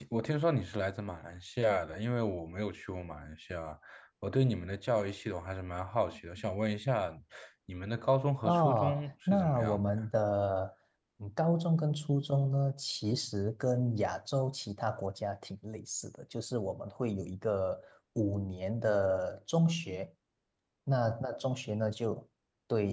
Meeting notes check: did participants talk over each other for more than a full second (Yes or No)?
Yes